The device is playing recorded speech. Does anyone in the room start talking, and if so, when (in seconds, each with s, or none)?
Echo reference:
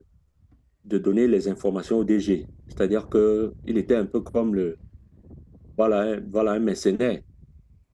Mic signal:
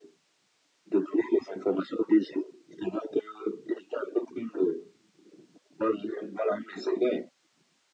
none